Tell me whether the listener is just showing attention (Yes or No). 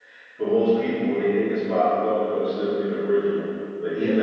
Yes